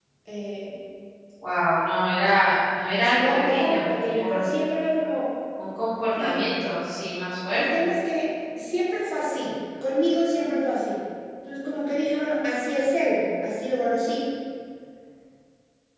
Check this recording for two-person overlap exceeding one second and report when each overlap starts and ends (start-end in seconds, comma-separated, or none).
3.1-4.5